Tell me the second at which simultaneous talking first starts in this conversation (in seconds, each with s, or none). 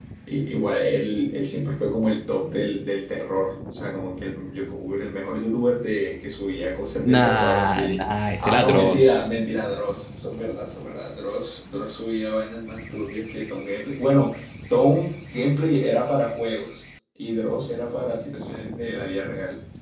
7.0 s